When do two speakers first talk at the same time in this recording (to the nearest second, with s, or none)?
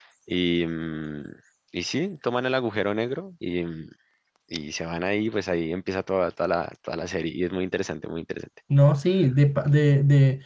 none